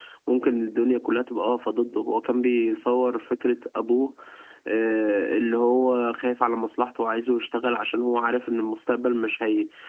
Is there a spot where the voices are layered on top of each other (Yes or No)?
No